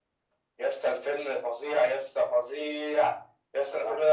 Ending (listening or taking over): listening